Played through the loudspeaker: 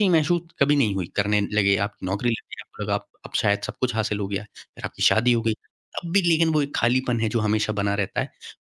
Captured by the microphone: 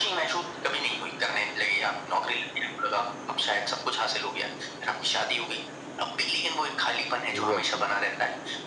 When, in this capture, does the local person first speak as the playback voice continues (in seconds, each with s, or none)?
7.3 s